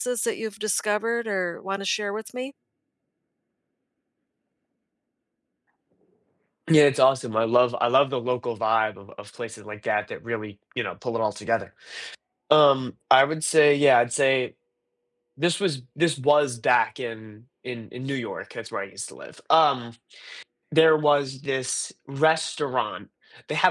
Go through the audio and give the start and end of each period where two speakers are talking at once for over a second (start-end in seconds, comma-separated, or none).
none